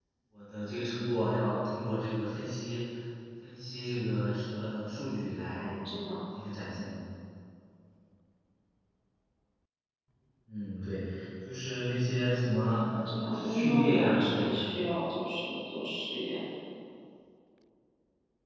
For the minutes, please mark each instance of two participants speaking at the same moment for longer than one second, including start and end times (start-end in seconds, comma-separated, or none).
13.3-14.7